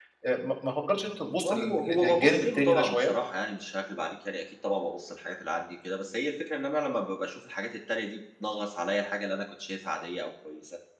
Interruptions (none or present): present